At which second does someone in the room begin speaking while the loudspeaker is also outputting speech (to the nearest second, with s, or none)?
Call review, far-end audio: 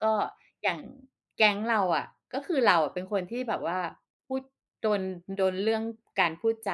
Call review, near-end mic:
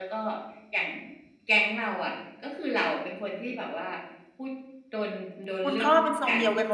6 s